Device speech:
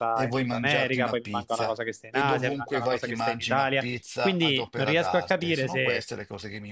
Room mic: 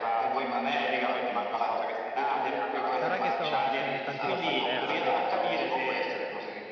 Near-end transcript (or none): Sarà che so, ho vissuto in tanti posti diversi, quindi ho